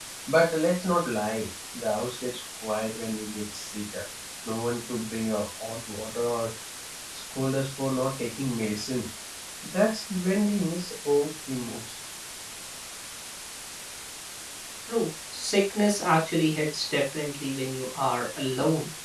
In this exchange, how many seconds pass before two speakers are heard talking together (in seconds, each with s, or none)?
none